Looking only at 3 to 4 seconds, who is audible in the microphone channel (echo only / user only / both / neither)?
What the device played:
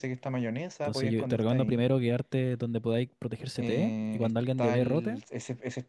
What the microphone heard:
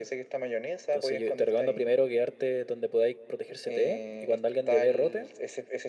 echo only